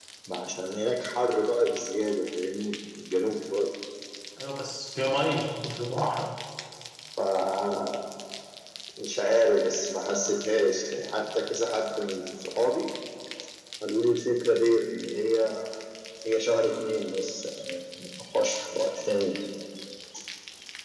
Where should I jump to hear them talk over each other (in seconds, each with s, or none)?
none